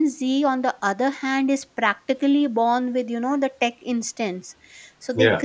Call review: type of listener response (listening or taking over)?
listening